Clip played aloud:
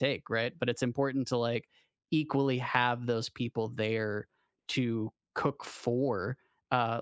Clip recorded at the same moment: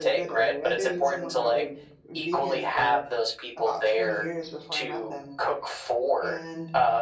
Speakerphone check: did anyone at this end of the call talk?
Yes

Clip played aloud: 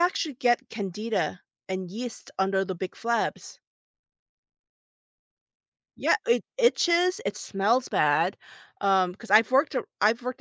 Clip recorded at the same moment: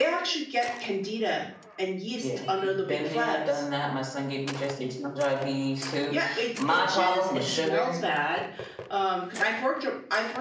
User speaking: Yes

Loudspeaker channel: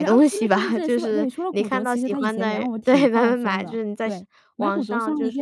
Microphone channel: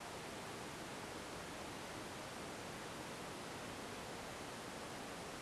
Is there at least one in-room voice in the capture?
No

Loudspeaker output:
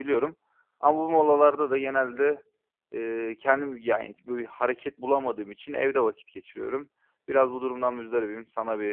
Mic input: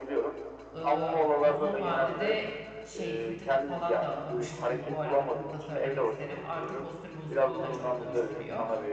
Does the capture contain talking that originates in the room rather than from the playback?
Yes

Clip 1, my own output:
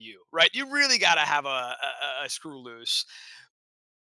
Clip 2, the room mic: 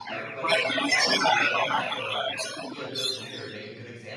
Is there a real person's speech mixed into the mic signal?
Yes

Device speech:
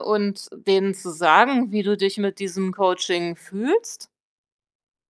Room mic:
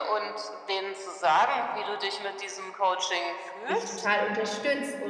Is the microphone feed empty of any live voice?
No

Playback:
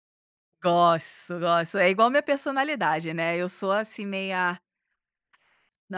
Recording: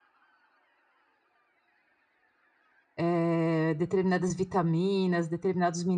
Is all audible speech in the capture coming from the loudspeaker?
No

